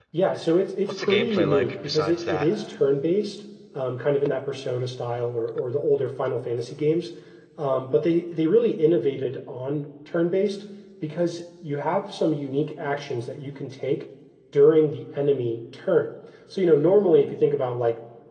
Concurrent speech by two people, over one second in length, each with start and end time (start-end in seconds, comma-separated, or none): 0.9-2.5